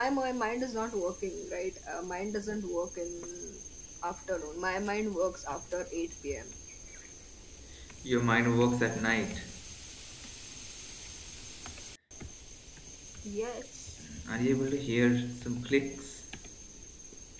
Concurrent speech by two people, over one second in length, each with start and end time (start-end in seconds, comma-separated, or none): none